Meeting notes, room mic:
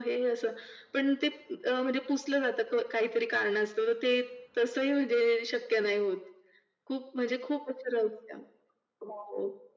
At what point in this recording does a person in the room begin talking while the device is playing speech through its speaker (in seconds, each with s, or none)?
none